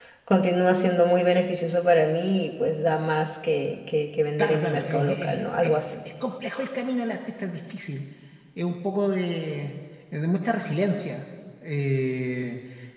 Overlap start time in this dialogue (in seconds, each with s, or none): 4.4 s